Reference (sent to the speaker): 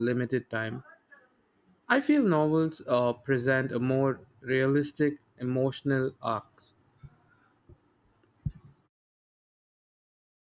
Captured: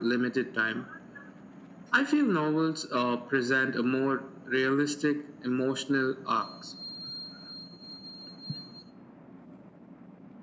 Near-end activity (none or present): none